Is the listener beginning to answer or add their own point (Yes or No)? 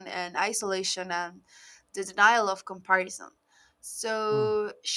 No